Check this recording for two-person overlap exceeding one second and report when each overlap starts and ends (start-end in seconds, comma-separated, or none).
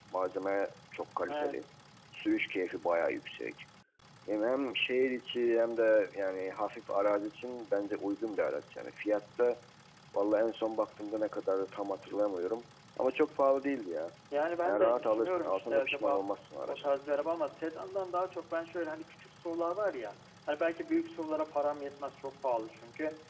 14.6-16.2